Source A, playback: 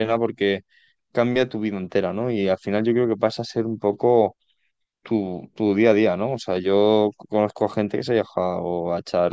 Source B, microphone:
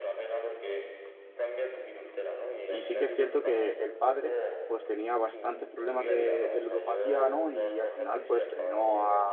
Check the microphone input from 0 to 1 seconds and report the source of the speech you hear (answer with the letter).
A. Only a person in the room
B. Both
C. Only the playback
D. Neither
C